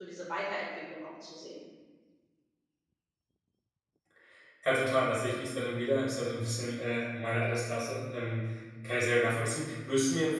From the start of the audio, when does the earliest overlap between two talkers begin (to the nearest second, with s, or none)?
none